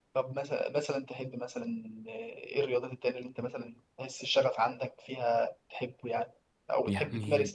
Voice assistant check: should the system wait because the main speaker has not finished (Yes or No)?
Yes